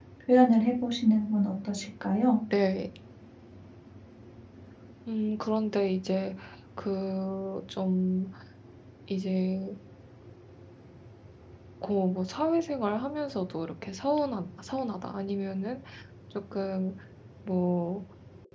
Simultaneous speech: No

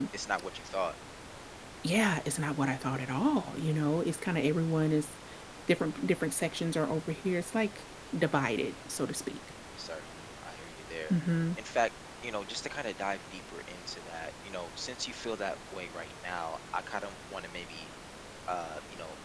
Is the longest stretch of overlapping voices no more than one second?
Yes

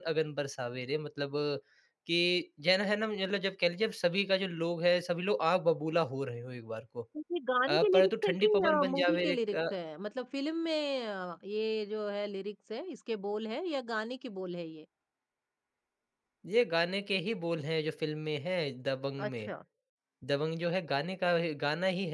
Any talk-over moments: Yes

